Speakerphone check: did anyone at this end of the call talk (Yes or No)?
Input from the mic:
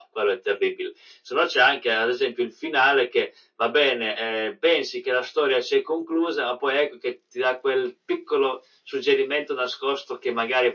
No